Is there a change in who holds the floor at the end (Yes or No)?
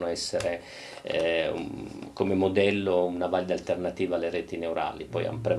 Yes